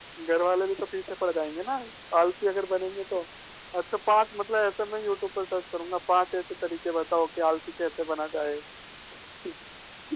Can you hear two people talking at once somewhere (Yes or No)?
No